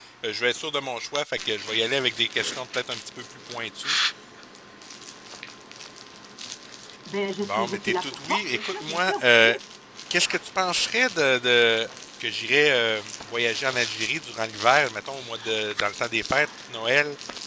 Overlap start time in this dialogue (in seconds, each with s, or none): 7.5 s